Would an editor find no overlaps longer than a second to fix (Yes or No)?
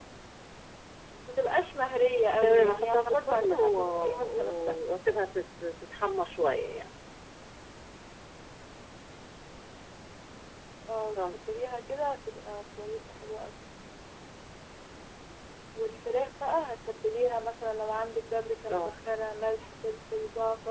No